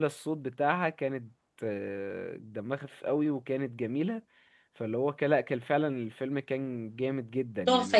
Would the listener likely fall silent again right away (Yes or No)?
No